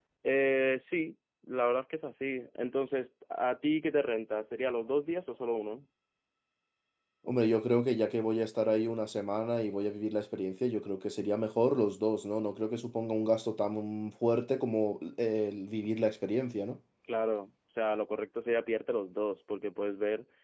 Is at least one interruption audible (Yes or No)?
No